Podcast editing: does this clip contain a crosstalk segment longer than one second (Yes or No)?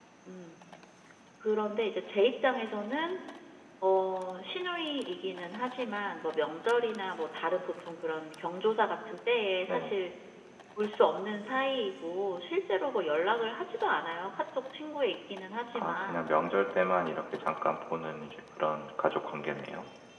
No